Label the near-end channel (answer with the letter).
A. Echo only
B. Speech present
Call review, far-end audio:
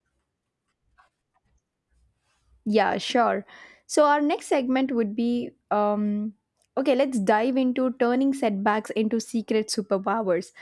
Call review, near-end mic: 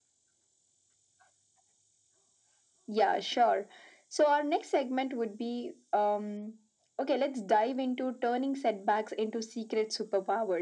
A